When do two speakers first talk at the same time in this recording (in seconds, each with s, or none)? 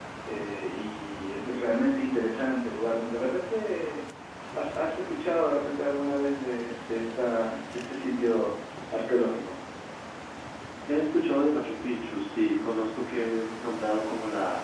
none